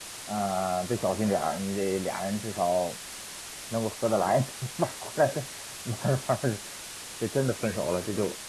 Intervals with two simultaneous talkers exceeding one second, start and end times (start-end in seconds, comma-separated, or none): none